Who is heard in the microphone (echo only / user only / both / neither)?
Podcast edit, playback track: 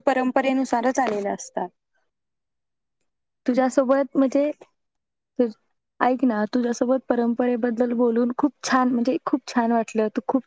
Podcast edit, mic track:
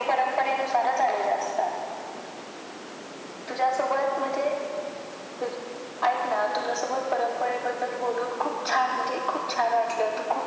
echo only